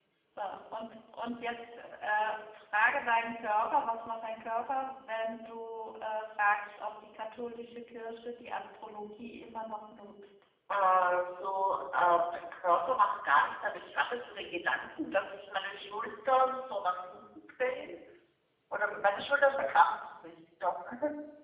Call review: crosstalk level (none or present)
none